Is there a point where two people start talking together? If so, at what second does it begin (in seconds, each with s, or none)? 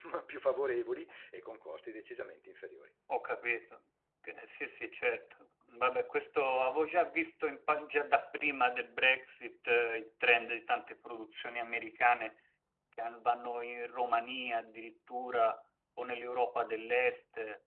none